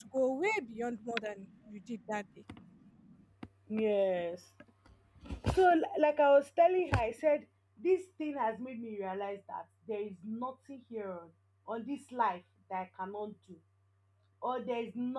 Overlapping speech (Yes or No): No